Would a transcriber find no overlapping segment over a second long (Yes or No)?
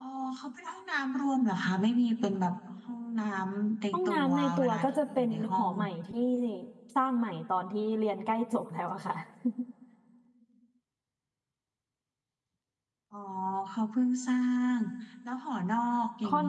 No